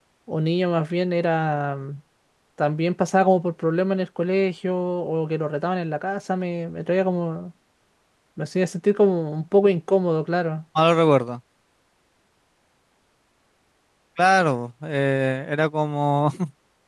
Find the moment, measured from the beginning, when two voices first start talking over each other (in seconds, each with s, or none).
none